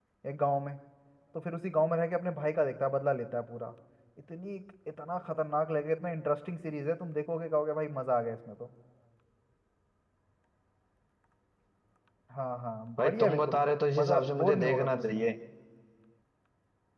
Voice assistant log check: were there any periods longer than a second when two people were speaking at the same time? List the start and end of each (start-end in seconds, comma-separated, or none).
13.0-15.2